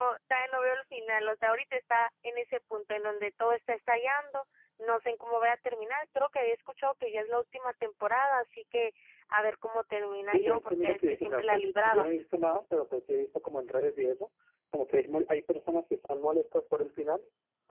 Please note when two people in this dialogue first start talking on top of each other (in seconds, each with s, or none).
10.3 s